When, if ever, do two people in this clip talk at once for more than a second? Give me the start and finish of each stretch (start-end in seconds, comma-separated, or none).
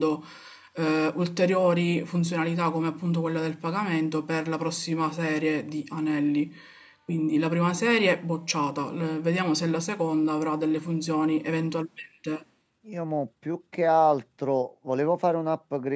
none